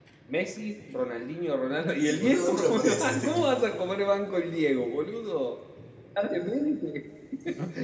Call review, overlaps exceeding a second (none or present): present